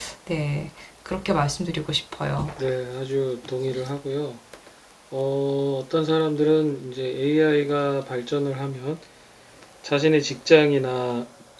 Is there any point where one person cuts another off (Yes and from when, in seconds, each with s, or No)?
No